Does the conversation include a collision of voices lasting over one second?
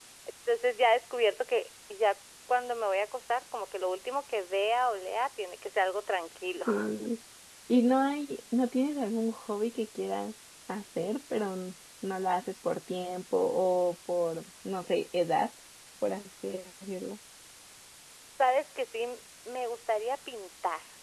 No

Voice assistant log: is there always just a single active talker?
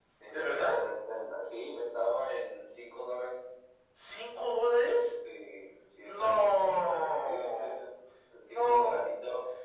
No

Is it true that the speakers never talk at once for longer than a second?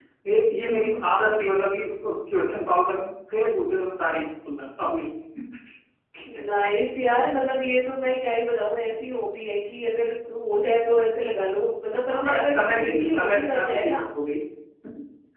No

